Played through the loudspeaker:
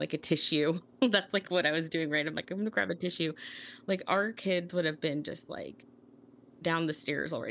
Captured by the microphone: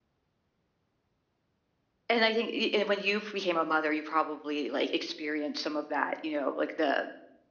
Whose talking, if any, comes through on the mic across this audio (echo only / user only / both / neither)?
user only